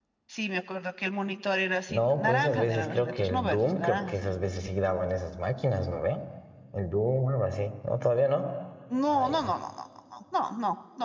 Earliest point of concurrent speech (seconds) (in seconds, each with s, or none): 1.9 s